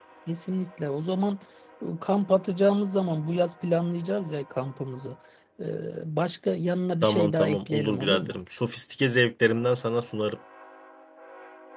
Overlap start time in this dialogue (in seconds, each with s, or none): 7.0 s